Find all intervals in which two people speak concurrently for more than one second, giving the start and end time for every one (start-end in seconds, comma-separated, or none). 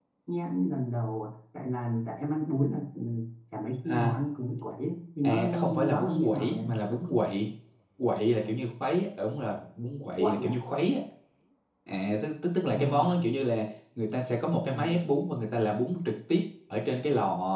5.2-6.7